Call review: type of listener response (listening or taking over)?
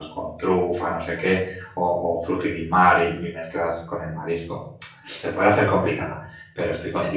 listening